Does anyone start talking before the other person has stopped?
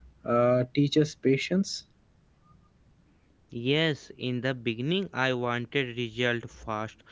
No

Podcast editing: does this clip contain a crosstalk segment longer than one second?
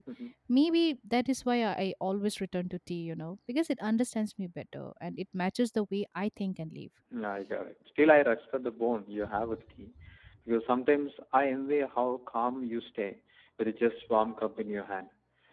No

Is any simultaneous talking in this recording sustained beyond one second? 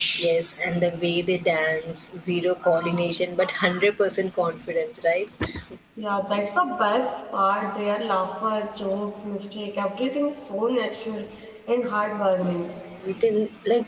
No

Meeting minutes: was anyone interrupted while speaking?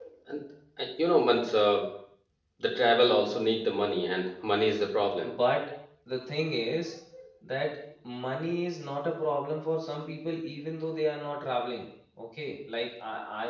No

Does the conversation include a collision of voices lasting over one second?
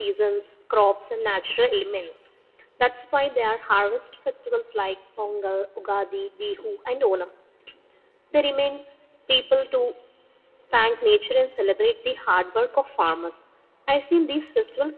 No

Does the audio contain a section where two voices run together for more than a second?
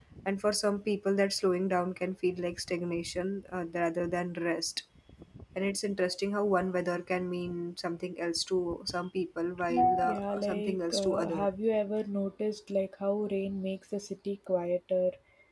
Yes, from 9.8 s

